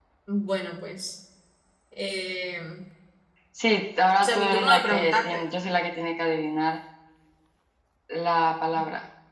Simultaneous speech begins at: 4.2 s

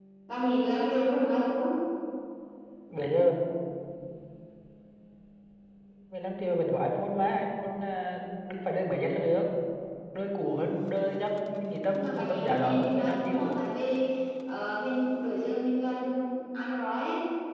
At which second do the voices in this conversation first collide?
11.9 s

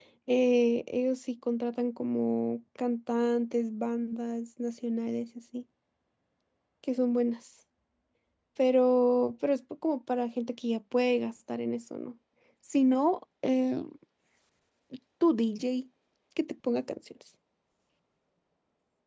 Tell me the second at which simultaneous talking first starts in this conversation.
none

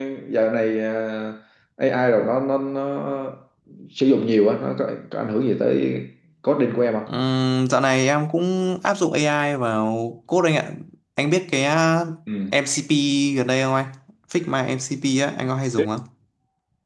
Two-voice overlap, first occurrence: none

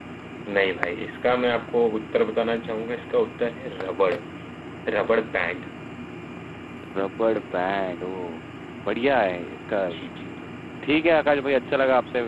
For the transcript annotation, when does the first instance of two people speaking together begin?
none

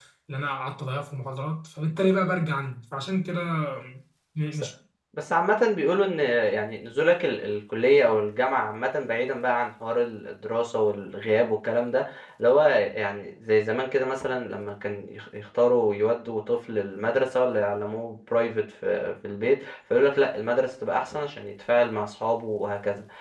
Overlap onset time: none

